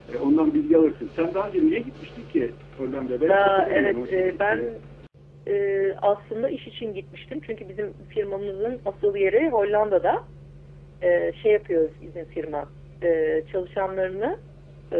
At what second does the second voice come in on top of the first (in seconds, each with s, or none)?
3.2 s